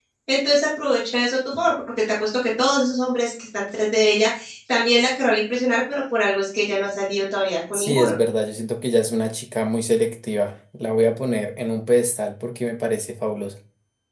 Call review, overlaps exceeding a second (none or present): none